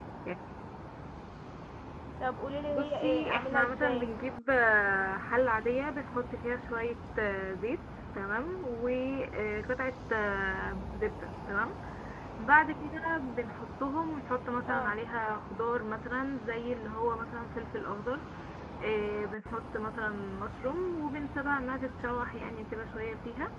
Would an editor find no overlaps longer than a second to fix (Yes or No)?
No